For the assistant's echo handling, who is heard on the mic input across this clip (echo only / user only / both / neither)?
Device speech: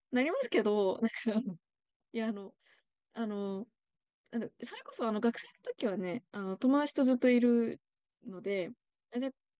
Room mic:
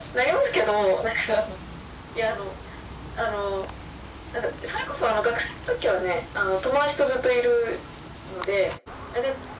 echo only